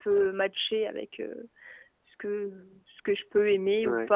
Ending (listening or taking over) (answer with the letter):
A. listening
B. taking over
A